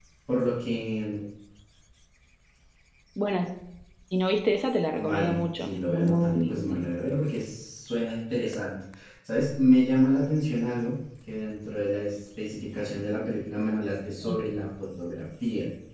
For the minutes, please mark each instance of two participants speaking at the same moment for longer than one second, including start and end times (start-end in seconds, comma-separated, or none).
5.0-6.8